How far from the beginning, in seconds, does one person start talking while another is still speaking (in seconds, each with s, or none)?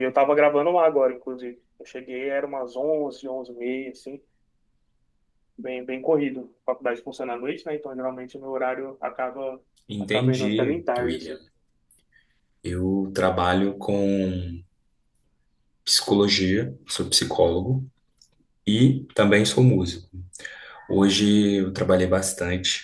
10.1 s